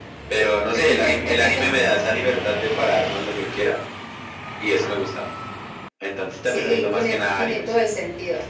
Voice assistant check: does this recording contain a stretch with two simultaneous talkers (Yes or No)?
Yes